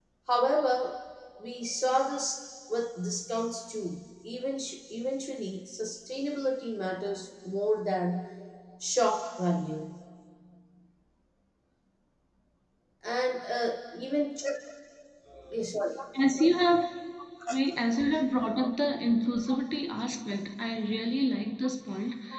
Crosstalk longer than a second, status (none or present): none